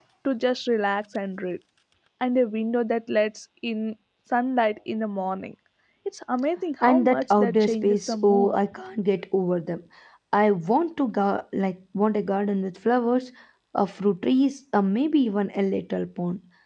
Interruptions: present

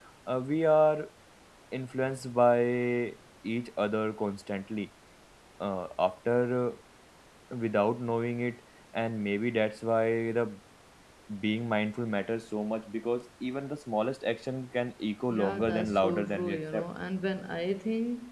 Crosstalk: present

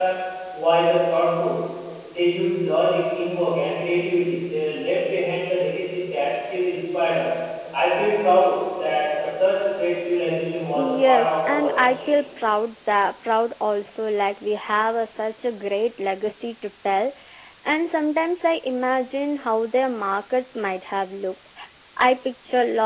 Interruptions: present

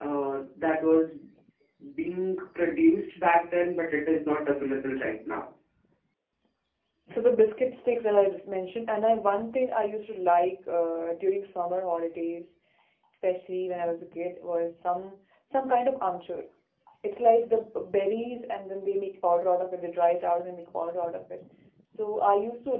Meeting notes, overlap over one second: none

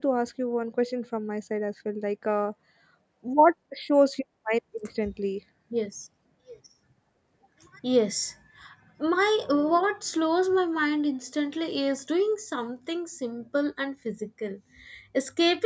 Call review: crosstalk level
none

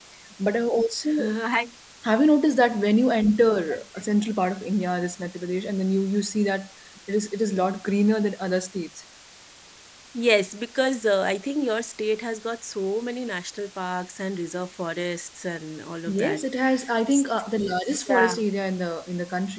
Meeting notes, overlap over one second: none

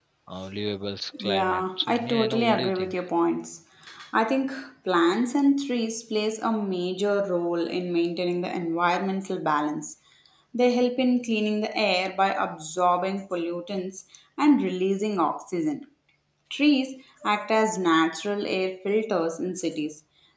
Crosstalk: present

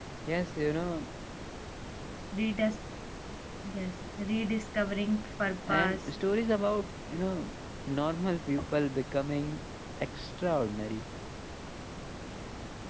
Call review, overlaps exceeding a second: none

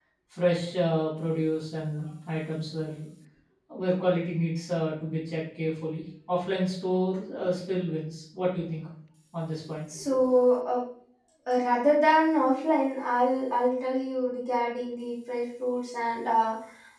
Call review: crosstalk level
none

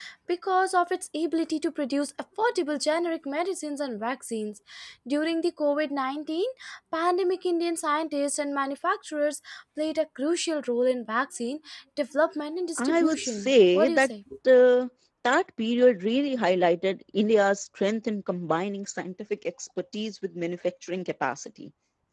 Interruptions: present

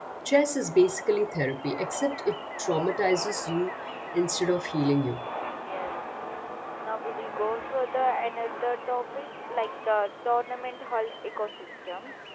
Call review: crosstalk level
none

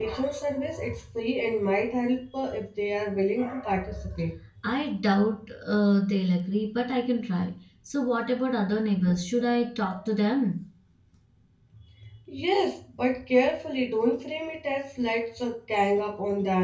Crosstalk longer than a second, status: none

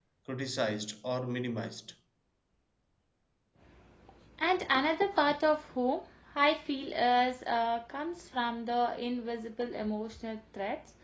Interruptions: none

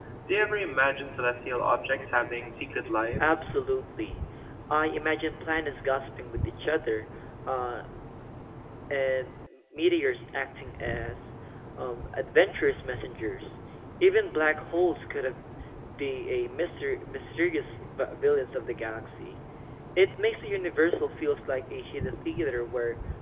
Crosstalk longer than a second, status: none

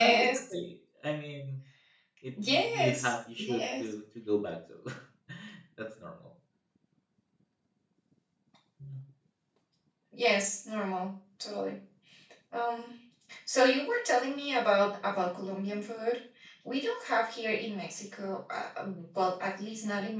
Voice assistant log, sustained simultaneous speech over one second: present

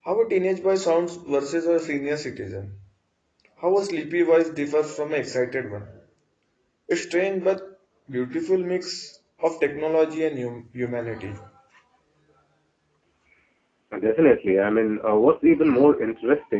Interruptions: none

